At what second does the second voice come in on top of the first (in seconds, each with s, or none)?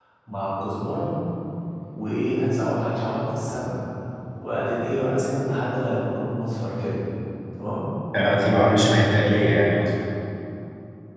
none